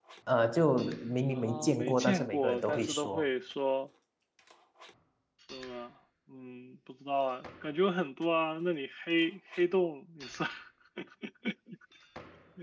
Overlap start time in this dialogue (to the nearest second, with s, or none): 1 s